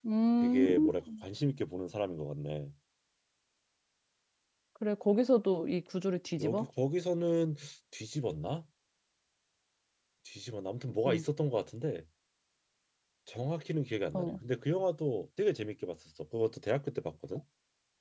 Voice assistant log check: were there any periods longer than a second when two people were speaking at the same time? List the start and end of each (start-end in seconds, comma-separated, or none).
none